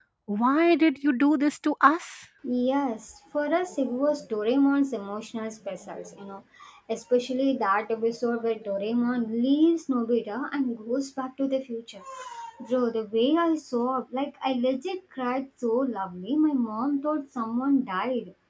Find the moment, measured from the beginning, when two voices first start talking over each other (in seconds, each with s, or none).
none